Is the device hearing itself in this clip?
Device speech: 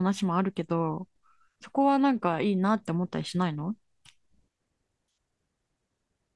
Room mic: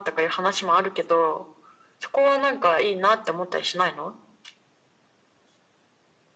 Yes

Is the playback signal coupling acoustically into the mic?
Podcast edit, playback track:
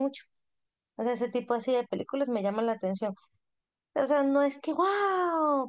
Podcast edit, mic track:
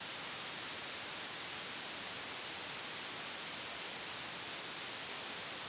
No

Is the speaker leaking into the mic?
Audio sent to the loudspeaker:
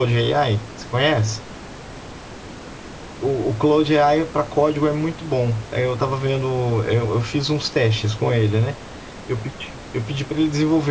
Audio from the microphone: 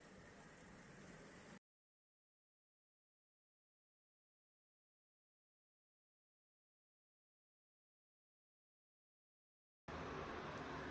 No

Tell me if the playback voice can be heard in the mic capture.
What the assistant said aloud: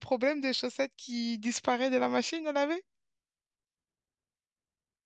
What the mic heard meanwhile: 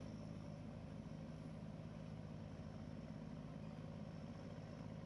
No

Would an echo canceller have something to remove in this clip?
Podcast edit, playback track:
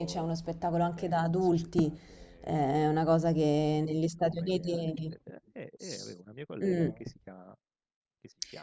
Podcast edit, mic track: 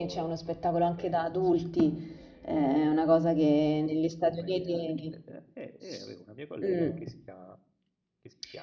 Yes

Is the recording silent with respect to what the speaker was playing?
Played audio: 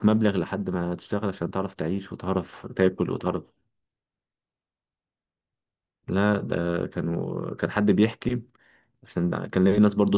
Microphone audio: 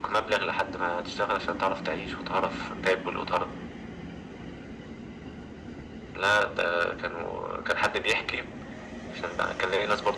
No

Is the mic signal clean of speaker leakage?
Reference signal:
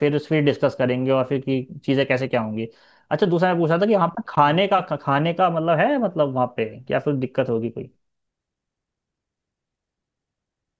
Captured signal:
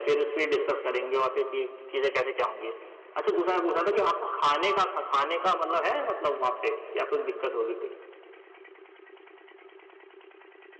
No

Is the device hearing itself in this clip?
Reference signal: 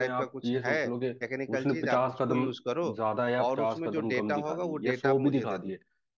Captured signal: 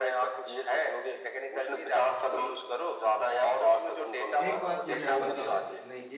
Yes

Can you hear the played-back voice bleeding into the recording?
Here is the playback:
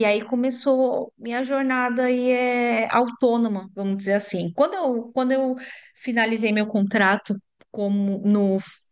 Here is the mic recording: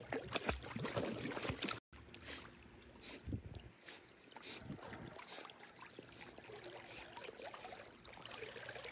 No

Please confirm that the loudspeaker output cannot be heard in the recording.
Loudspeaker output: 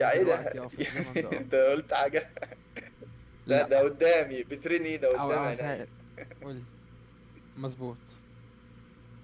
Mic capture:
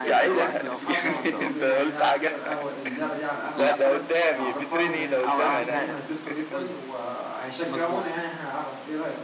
No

